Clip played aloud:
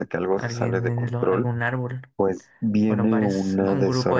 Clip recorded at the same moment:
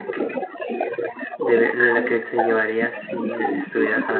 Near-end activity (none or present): present